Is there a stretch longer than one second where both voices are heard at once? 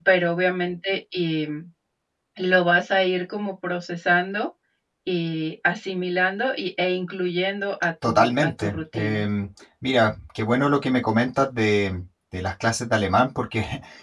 Yes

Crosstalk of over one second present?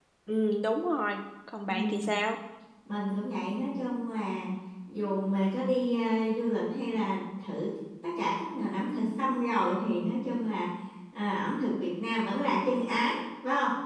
No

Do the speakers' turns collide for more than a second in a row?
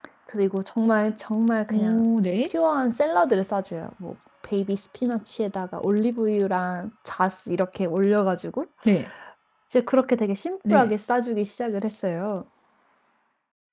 No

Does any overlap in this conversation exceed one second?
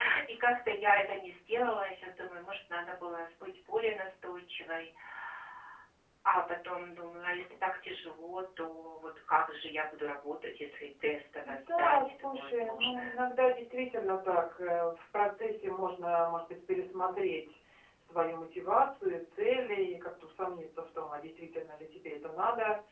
Yes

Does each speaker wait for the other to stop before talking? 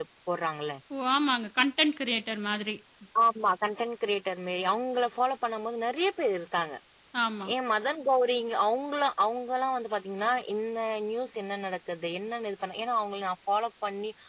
Yes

